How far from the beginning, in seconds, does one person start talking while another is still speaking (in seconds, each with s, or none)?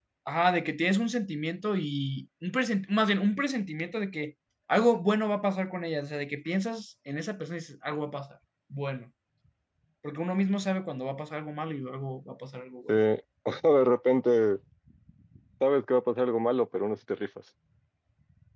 none